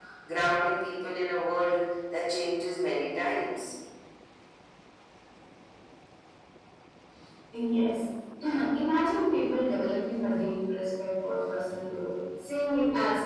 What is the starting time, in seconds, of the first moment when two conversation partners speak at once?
none

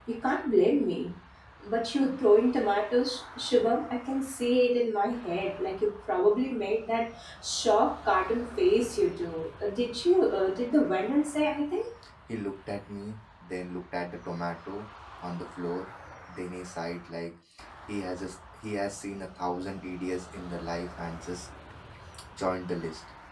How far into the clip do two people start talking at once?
none

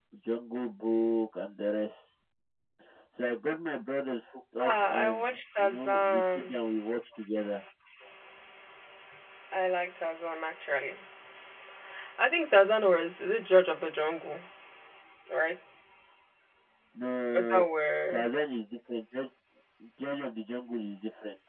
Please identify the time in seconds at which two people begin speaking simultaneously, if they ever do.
4.6 s

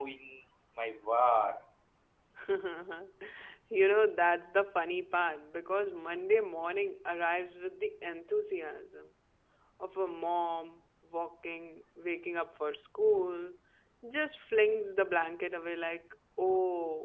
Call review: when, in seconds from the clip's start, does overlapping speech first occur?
none

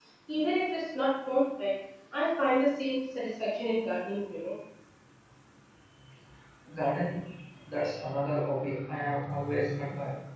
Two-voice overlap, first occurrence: none

